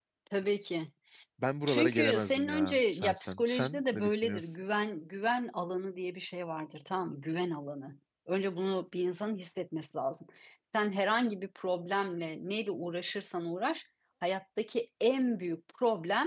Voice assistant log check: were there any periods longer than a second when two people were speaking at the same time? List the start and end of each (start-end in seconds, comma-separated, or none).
1.7-4.5